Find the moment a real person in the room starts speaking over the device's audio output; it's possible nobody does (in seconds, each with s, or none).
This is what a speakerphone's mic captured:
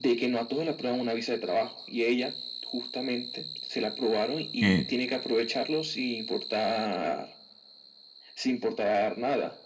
4.6 s